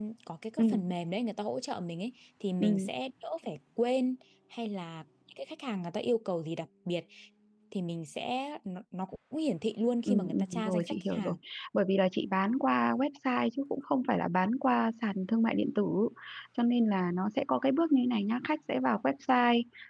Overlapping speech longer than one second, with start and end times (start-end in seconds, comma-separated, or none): 10.1-11.3